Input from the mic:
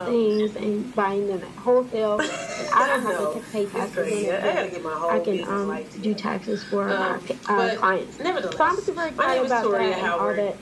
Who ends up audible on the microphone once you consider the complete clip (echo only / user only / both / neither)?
echo only